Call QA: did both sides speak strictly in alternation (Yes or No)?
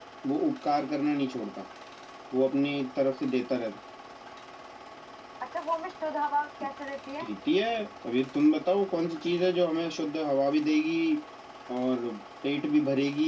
Yes